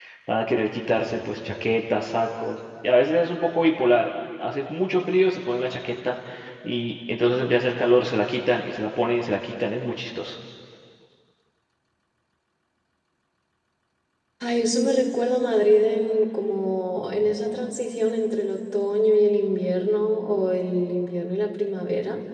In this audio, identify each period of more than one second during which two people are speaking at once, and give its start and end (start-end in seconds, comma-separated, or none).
none